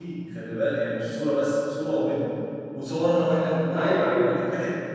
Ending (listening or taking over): listening